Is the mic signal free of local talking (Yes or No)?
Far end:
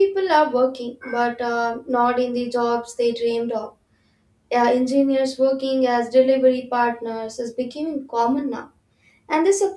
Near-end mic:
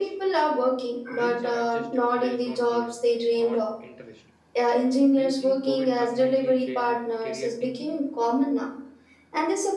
No